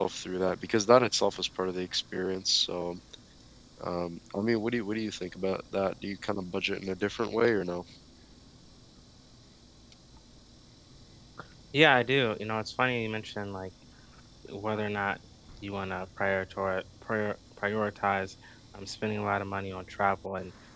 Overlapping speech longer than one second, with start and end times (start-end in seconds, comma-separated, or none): none